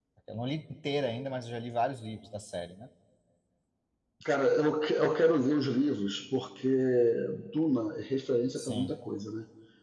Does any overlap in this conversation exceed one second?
No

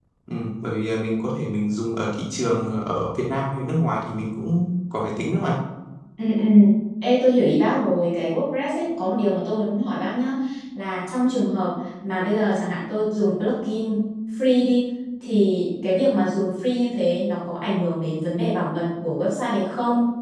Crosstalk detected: No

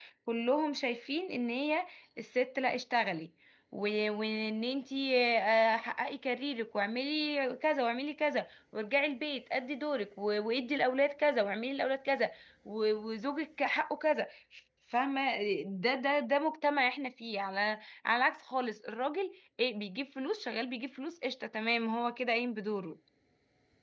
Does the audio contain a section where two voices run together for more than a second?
No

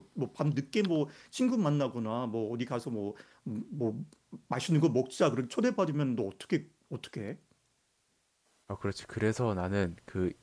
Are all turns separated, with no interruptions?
Yes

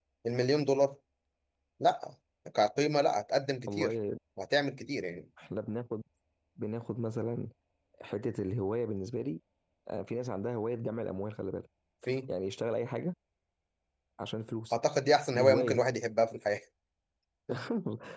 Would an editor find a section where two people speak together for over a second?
No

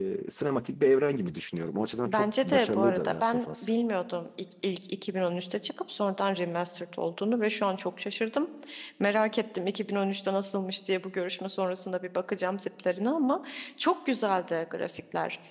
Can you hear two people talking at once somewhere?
Yes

